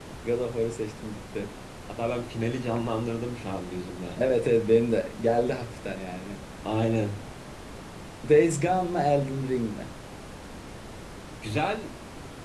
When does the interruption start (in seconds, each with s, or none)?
none